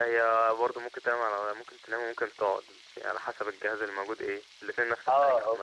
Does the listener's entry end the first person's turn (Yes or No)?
Yes